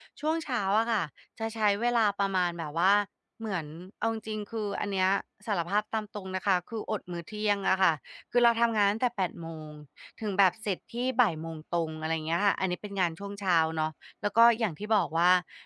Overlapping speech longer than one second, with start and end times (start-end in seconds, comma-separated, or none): none